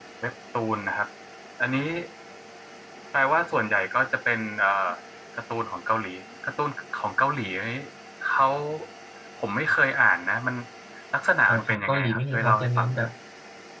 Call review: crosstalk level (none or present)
present